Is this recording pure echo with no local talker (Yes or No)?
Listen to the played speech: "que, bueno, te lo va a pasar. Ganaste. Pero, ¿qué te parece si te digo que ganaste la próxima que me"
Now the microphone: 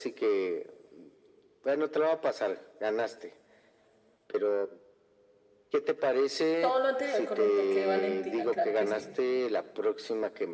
No